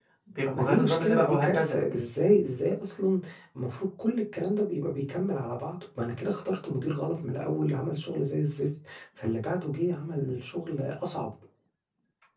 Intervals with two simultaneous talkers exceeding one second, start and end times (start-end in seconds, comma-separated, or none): 0.5-1.8